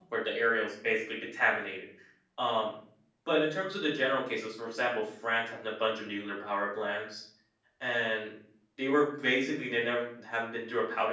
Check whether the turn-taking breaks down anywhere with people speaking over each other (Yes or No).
No